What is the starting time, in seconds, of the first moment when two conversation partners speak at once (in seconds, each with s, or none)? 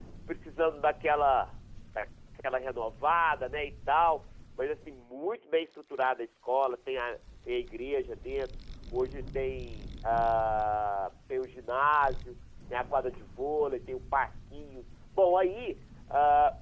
none